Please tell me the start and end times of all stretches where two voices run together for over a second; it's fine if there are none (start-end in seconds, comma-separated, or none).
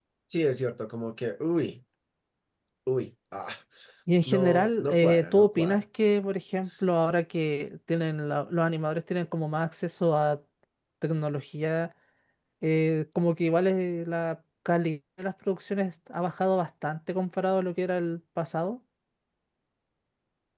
4.2-5.8